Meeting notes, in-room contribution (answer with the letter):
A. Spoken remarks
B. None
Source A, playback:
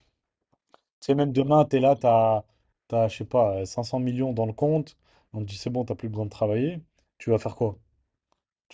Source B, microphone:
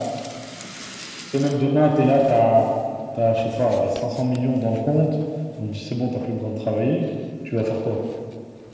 B